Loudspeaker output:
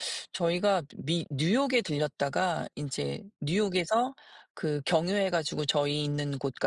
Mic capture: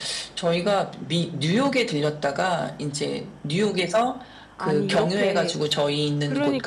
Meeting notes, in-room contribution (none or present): present